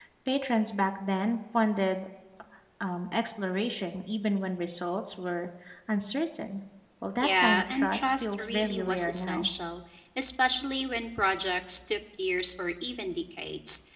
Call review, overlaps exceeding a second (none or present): present